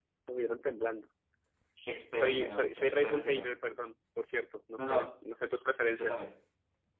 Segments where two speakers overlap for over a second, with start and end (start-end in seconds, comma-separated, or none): 2.1-3.5